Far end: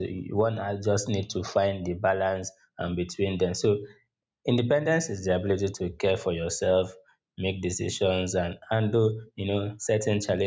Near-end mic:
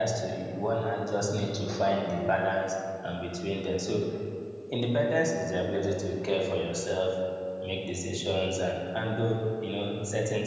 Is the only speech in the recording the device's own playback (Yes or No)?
Yes